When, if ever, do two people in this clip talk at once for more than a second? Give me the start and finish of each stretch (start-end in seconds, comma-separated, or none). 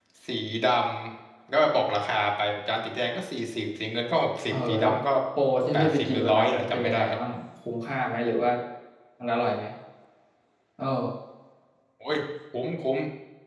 5.7-7.0